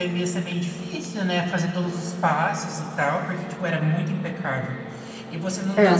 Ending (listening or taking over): listening